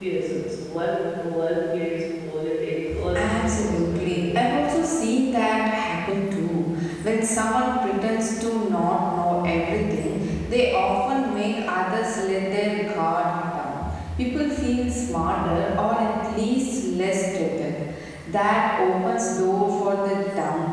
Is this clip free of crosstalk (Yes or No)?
No